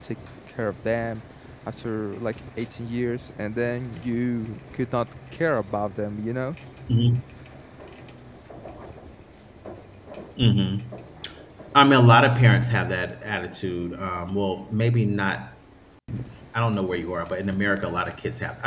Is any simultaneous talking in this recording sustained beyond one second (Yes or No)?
No